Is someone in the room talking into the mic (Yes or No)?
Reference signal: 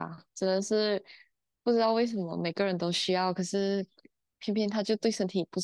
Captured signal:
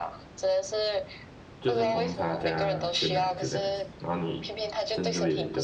Yes